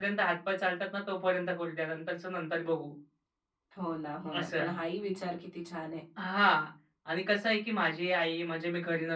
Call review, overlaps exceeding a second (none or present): none